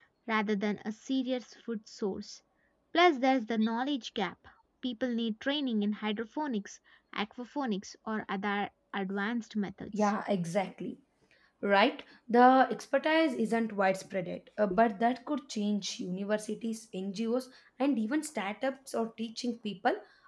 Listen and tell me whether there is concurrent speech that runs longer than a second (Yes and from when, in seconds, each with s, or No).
No